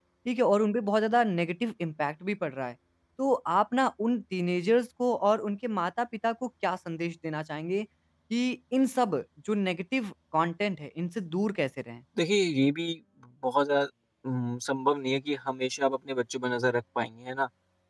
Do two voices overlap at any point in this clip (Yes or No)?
No